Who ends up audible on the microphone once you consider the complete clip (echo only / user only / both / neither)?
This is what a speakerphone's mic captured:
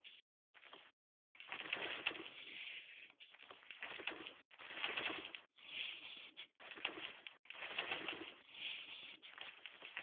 neither